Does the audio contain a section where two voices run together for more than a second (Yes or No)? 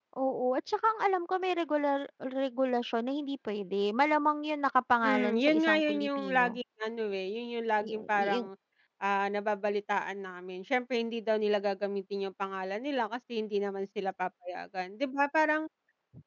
Yes